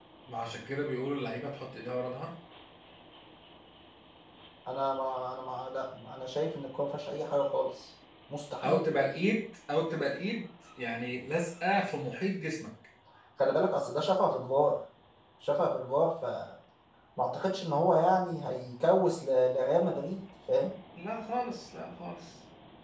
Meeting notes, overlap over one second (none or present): none